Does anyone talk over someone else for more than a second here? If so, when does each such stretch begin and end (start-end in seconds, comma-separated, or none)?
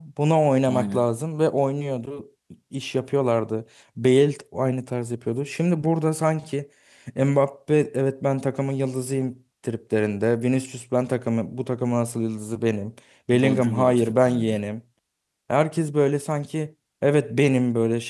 13.3-14.6